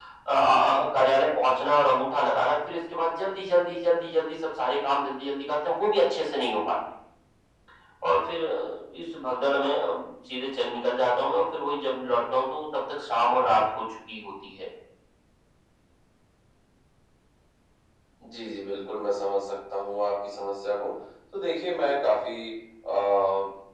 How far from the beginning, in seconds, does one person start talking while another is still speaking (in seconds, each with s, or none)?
none